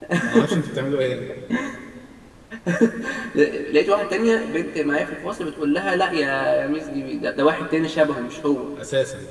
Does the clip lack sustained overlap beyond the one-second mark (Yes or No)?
Yes